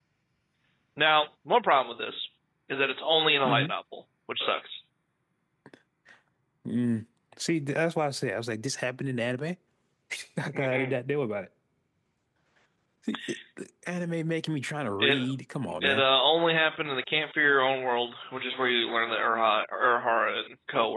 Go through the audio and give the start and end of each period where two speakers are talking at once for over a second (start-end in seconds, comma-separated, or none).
none